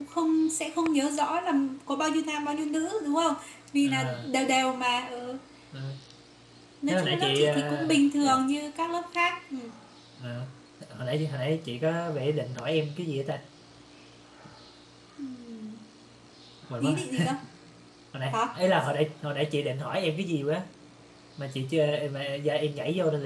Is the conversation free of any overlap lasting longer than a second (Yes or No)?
No